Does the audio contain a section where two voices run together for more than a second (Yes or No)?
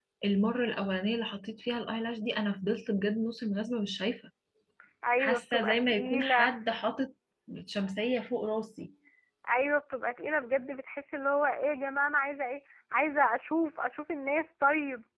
Yes